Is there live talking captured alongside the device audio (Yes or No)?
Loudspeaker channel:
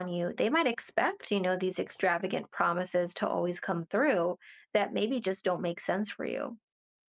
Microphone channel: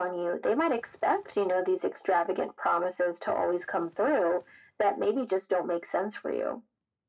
No